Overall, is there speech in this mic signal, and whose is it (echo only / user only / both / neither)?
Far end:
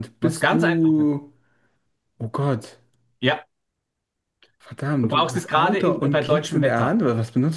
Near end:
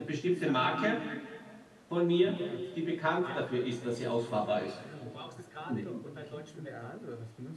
both